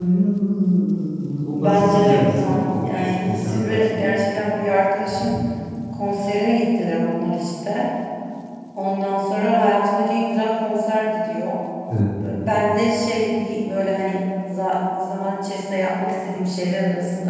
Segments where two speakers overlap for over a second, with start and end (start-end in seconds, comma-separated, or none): 1.6-4.0